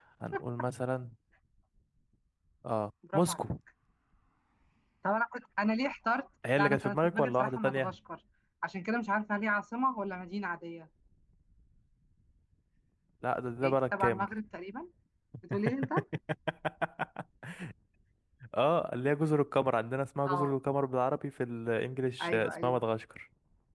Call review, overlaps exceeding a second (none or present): present